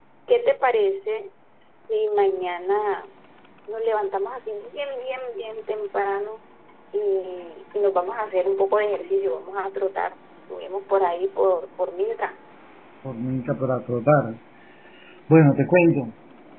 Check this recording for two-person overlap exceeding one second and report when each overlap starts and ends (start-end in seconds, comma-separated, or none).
none